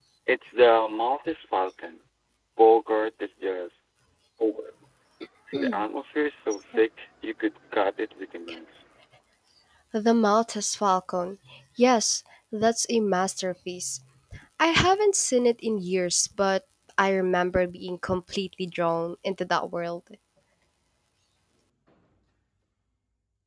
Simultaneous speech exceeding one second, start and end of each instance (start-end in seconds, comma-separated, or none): none